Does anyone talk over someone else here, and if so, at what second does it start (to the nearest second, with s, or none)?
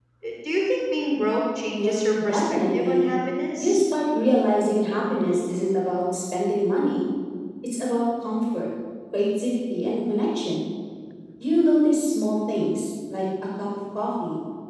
2 s